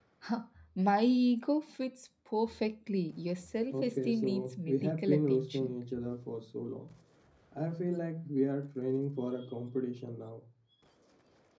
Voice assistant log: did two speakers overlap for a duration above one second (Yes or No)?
Yes